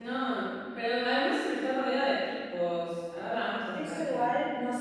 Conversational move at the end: taking over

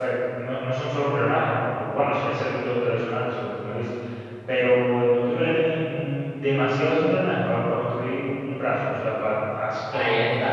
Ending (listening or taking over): taking over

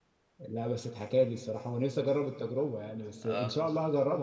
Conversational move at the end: listening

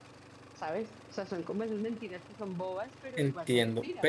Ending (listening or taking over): taking over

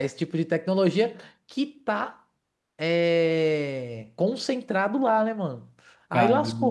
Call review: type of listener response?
listening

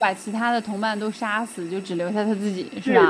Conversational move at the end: taking over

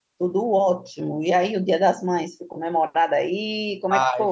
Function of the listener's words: taking over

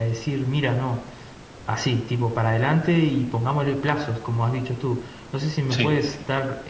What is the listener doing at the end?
listening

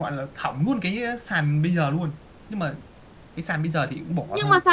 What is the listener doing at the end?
taking over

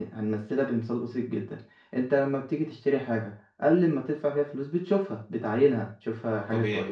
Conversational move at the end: listening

